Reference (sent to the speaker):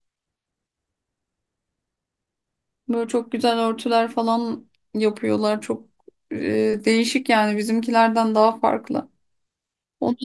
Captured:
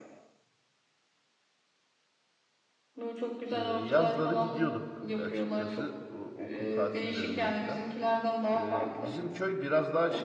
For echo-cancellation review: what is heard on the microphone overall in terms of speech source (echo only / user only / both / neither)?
both